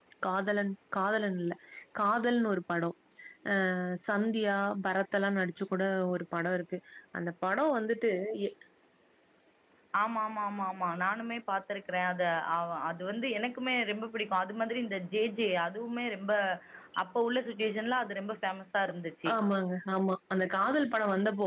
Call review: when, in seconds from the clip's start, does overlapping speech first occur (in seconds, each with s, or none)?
none